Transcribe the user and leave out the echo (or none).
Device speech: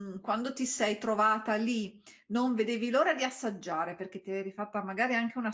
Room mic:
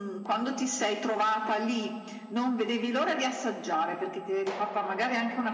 none